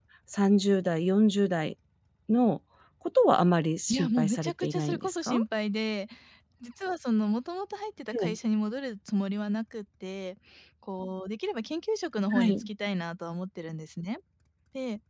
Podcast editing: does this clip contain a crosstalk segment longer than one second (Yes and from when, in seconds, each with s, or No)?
Yes, from 3.9 s